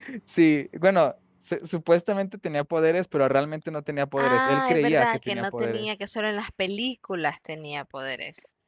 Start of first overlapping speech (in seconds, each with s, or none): 4.2 s